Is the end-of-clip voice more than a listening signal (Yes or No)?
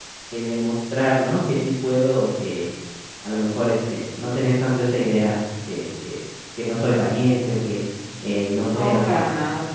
Yes